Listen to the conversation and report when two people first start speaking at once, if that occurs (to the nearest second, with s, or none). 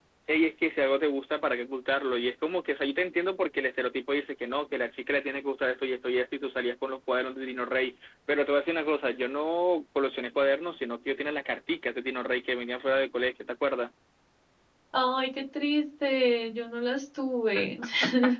none